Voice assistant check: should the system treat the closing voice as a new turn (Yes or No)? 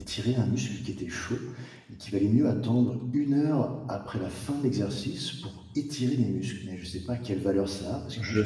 Yes